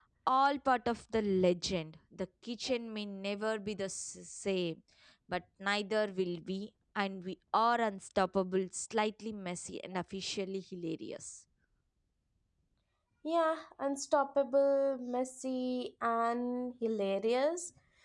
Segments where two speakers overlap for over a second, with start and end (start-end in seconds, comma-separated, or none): none